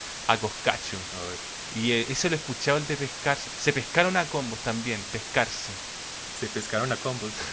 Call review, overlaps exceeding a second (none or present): none